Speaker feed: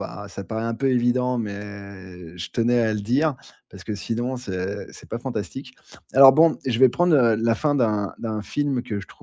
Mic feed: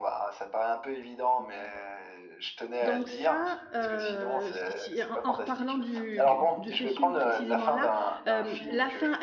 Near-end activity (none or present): present